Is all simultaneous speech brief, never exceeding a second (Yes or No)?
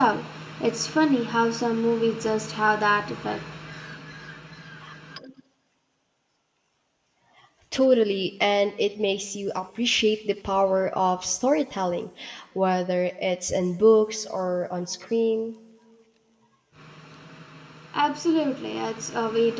Yes